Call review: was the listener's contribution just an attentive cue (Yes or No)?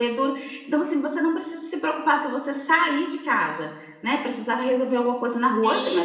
Yes